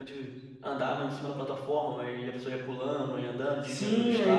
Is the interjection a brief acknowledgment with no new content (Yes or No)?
No